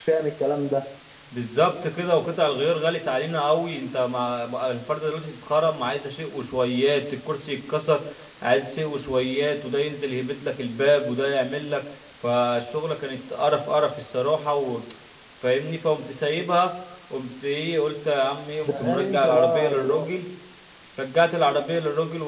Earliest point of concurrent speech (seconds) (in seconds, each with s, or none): 18.6 s